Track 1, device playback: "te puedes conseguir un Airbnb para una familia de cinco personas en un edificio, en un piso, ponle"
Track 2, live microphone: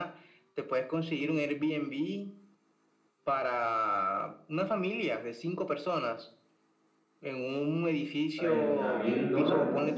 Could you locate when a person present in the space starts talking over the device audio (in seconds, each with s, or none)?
8.3 s